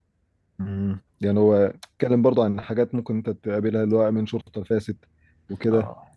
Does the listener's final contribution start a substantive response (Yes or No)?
No